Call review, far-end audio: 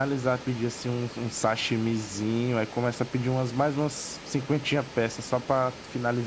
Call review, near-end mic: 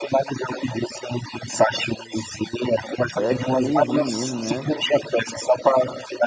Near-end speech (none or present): present